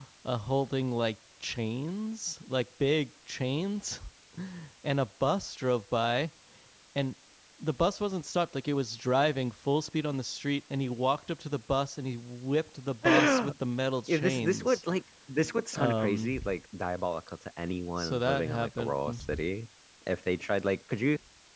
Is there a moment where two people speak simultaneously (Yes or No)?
Yes